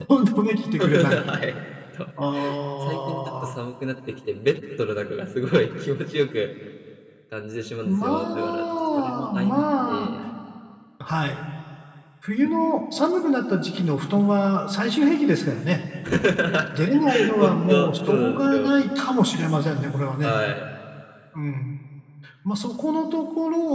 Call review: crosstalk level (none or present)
present